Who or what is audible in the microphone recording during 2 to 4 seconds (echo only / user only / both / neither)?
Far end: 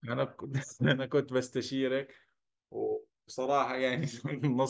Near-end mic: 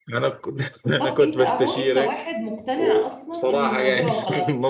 both